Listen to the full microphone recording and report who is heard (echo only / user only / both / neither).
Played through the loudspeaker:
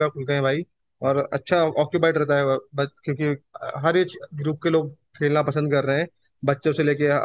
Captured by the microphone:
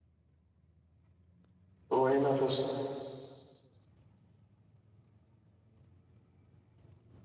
user only